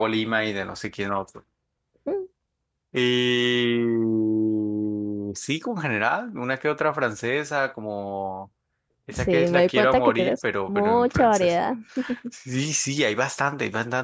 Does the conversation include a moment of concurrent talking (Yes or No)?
Yes